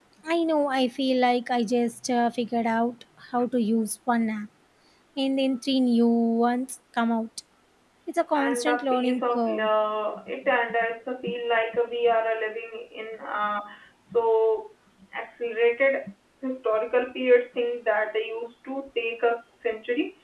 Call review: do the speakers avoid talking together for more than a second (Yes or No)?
No